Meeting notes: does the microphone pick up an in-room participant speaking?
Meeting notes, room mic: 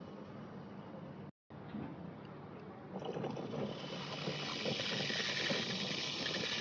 No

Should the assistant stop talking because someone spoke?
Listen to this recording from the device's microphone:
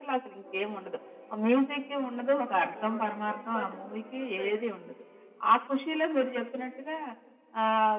Yes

